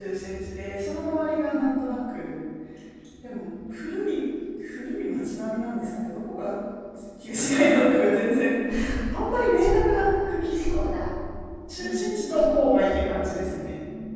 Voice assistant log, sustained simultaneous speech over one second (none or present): present